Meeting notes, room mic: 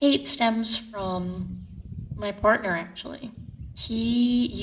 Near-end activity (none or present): present